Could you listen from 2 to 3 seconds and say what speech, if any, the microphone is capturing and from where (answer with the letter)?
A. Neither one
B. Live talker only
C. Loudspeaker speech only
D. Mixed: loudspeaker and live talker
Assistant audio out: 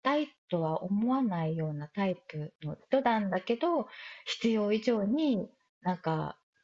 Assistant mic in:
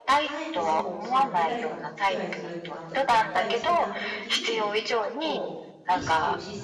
D